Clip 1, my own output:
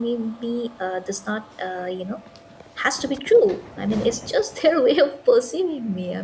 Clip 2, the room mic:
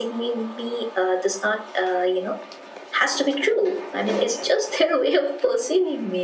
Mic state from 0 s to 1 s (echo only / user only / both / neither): echo only